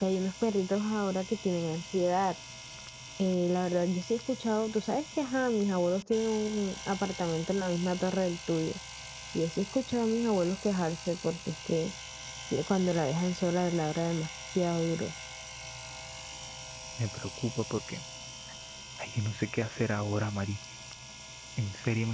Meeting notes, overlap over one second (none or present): none